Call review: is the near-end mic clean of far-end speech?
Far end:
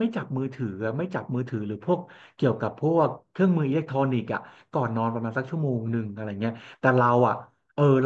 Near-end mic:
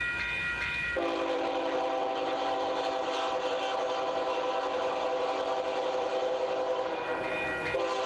Yes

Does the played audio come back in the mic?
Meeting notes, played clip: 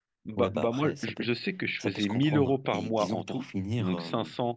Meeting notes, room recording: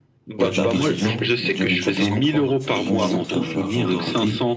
Yes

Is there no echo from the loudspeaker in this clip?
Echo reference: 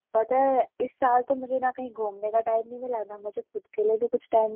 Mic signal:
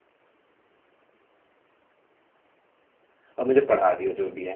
Yes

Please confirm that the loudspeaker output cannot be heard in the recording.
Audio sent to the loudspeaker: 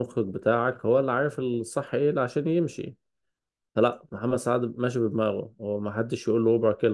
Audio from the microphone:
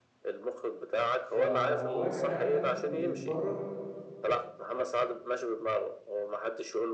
No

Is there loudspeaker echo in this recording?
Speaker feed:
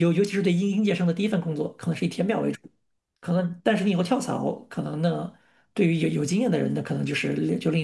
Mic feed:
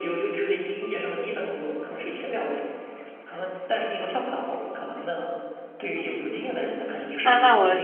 Yes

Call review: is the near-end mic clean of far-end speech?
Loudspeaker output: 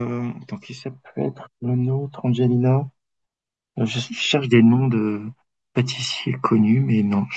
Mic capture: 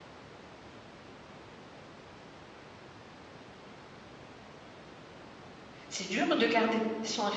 Yes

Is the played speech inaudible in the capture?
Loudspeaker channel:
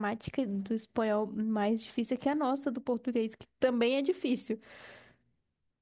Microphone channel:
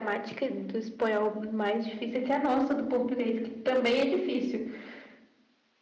No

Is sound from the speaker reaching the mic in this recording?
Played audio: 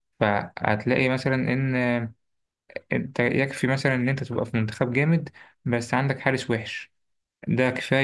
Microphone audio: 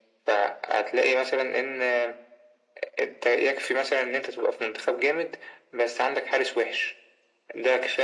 Yes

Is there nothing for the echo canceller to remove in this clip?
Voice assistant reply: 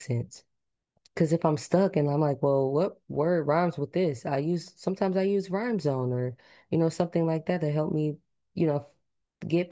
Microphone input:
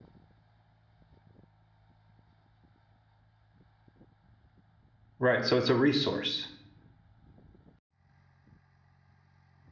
Yes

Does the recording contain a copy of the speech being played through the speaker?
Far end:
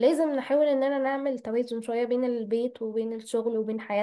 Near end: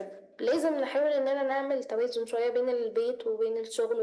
Yes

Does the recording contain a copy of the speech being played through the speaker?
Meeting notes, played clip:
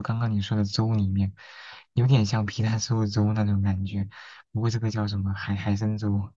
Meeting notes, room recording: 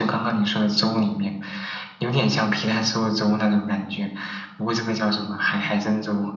Yes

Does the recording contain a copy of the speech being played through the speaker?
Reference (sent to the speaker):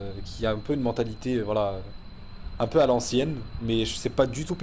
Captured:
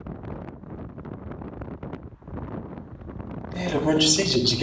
No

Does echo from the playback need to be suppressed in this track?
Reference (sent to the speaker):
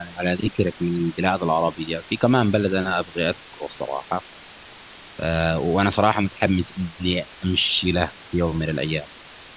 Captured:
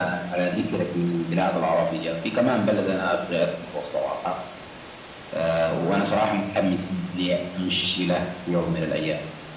Yes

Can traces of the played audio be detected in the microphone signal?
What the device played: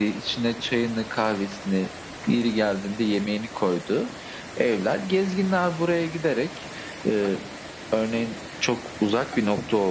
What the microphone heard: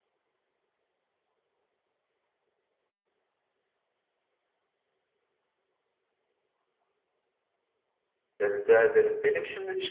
No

